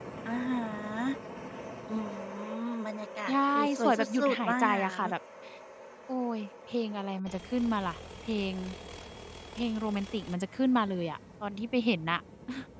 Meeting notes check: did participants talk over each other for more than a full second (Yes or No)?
Yes